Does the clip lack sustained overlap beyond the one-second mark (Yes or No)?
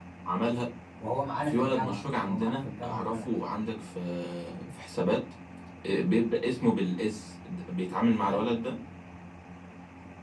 No